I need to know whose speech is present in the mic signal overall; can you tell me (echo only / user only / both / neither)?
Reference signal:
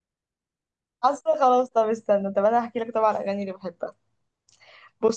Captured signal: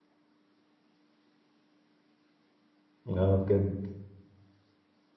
user only